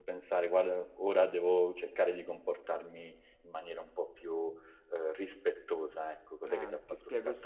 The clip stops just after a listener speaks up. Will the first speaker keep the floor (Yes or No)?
No